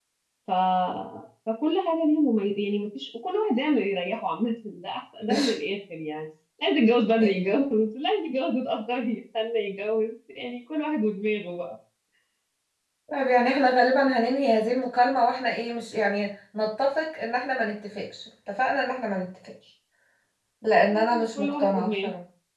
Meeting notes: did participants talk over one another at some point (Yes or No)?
Yes